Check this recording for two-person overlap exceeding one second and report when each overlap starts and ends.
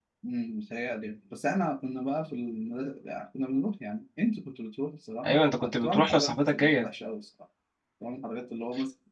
5.2-6.9

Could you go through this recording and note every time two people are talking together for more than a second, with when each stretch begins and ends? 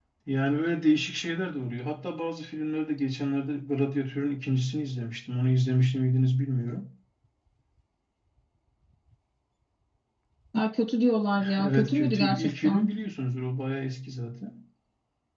11.6-12.9

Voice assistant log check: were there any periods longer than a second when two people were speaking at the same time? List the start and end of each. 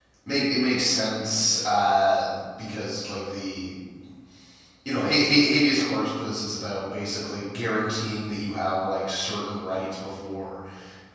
none

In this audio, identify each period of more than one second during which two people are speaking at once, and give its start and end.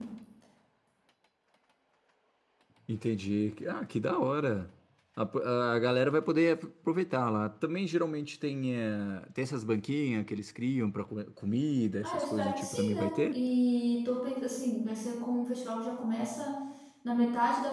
12.0-13.4

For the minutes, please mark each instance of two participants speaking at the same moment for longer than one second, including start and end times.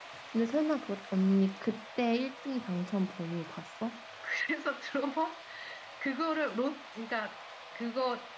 none

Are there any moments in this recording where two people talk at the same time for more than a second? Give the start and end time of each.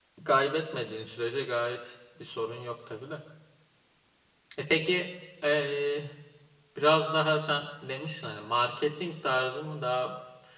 none

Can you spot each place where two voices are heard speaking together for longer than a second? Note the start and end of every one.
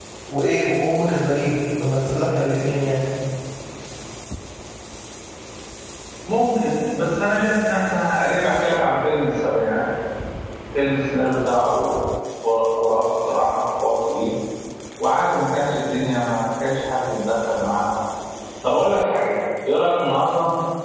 none

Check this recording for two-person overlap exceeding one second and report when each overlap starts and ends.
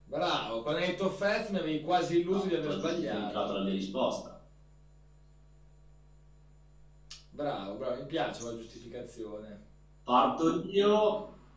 2.3-3.6

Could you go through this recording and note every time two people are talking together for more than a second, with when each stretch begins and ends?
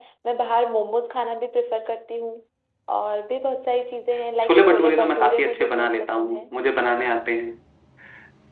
4.4-6.5

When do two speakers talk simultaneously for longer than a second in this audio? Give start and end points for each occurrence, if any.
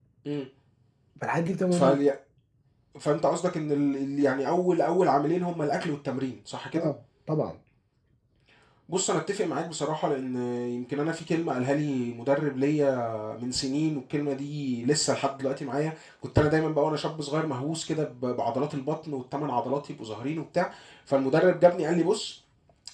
none

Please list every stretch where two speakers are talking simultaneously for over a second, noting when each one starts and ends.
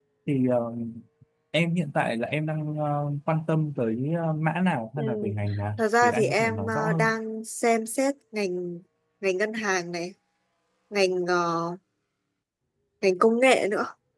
5.8-7.1

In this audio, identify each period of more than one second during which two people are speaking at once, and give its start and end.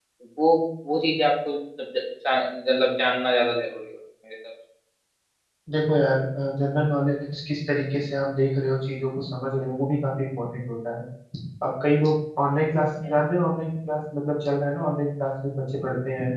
none

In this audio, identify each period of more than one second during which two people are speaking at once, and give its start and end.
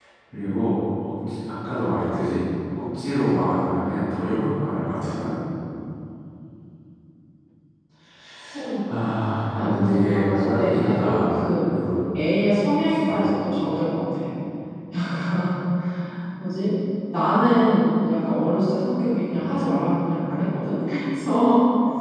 9.5-11.7

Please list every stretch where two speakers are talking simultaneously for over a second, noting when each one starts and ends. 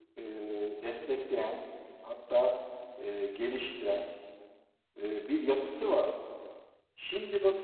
none

